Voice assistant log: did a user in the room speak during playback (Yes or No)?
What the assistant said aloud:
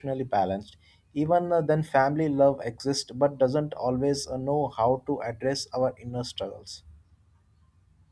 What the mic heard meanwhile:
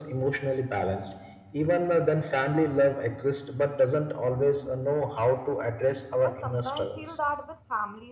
Yes